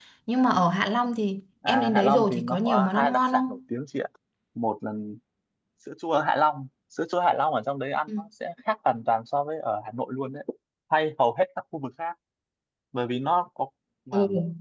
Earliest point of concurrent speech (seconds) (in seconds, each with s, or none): 1.6 s